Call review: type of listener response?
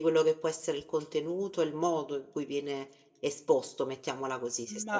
taking over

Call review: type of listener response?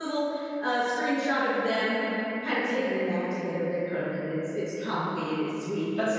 listening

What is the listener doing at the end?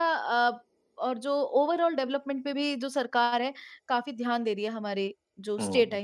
taking over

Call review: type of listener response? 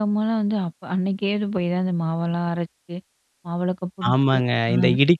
taking over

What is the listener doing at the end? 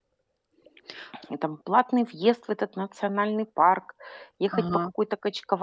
listening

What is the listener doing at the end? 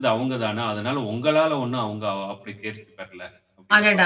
taking over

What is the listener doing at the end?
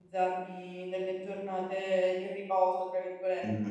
taking over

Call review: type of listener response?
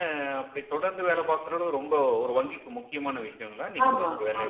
taking over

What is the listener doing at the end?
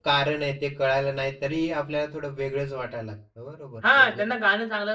taking over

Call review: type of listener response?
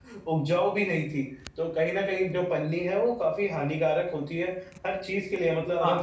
listening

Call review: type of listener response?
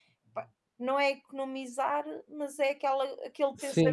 taking over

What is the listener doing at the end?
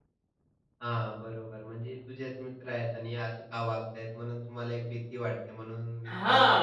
taking over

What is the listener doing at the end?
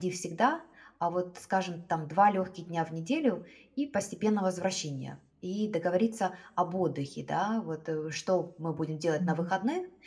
listening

